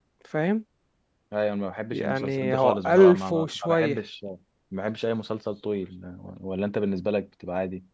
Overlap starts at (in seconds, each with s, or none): 1.9 s